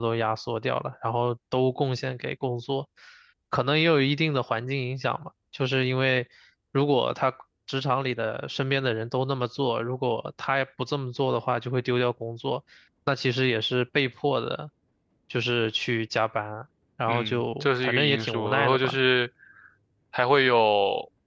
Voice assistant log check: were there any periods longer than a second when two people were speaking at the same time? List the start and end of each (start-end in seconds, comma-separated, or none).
17.1-19.0